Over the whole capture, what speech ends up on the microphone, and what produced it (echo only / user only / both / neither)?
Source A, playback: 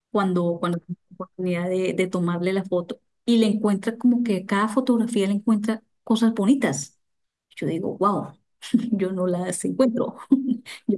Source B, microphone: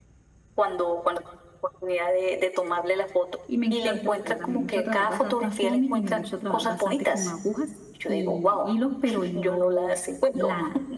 both